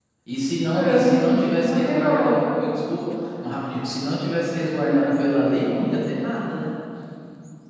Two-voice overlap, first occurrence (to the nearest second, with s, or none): 1 s